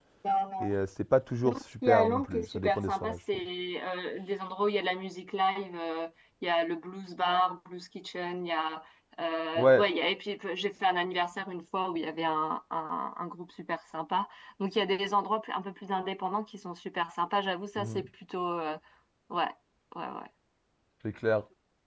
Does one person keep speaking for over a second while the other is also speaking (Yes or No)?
Yes